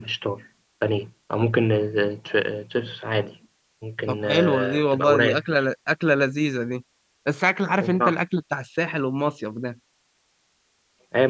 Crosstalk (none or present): present